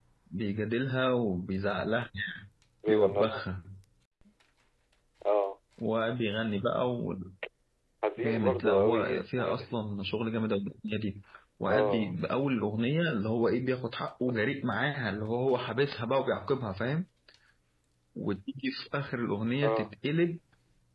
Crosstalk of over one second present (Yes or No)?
Yes